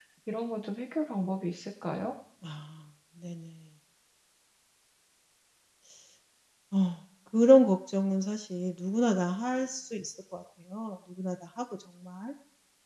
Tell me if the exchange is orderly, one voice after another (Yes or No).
Yes